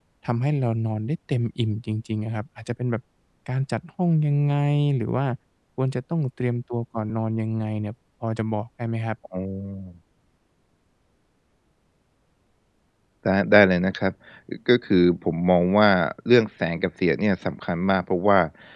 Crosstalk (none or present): none